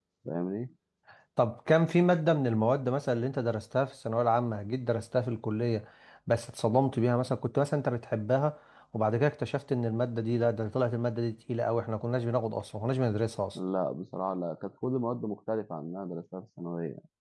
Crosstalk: none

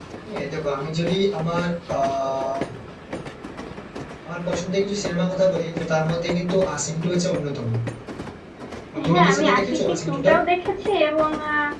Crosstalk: present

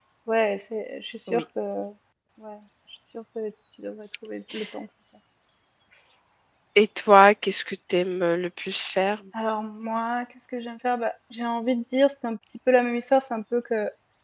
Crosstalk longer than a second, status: none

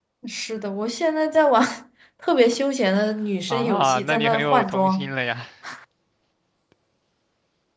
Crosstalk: present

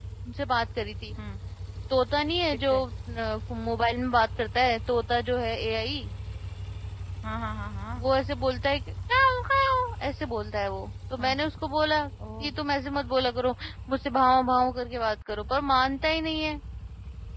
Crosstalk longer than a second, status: none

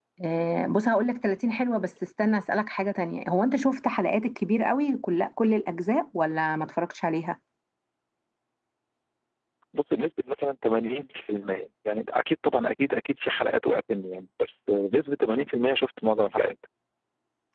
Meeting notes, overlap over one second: none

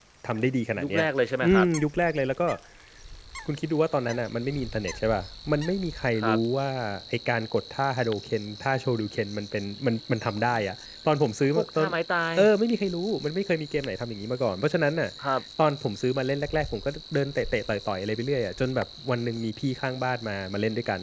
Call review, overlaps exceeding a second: none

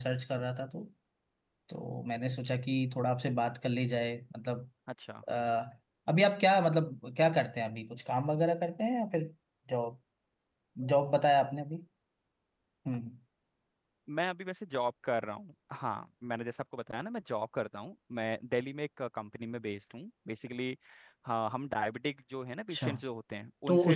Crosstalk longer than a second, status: none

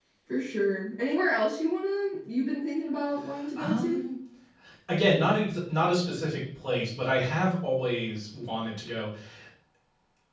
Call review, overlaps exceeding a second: none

